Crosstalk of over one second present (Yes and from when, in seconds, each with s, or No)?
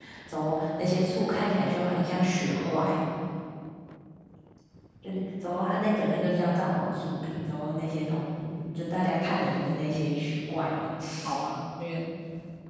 No